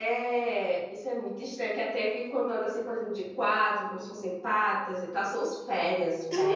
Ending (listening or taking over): taking over